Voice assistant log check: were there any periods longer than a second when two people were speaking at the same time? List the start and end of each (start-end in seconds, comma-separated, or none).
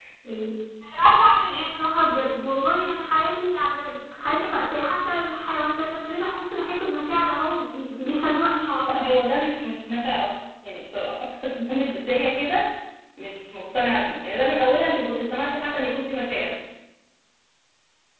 none